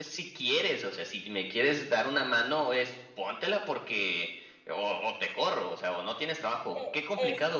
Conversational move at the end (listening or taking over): taking over